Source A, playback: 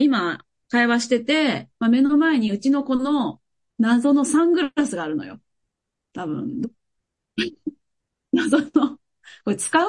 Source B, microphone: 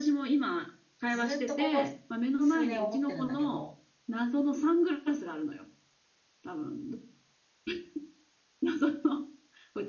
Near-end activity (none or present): present